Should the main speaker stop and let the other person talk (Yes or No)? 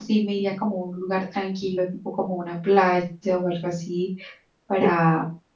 No